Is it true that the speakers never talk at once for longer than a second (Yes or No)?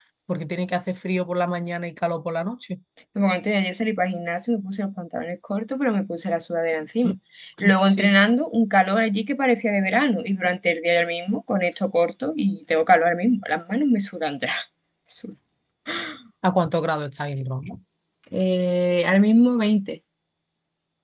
Yes